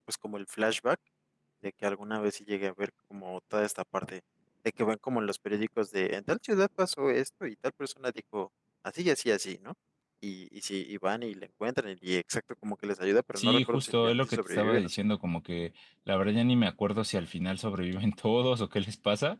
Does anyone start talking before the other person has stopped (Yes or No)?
Yes